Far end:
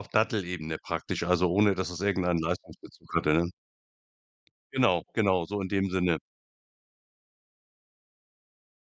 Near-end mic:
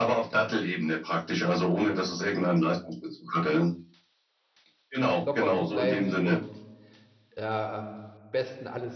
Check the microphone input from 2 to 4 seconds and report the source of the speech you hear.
echo only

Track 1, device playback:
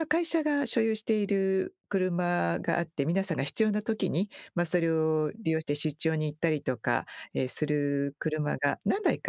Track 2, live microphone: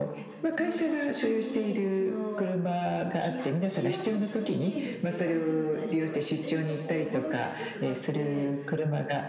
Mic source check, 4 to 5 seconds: both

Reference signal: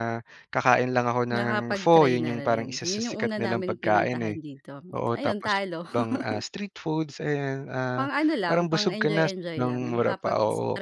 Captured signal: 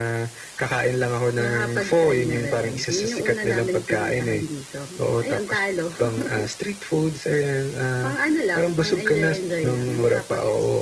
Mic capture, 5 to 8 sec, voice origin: echo only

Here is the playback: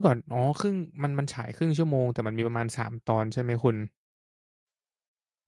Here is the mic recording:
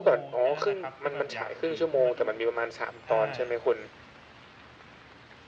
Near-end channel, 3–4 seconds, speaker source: both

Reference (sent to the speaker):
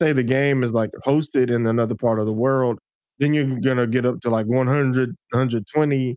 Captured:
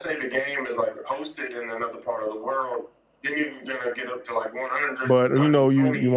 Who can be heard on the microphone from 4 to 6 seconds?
both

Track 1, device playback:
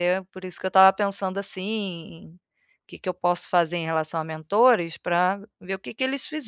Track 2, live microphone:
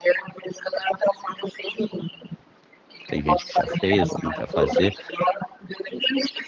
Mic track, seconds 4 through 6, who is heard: both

